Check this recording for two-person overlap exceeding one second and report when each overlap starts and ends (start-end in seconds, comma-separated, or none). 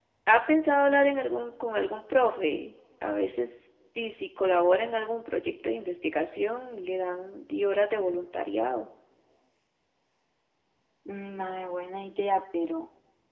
none